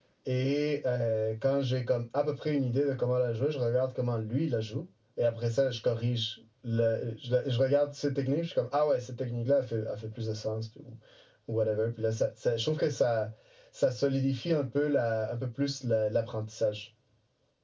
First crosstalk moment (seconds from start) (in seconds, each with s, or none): none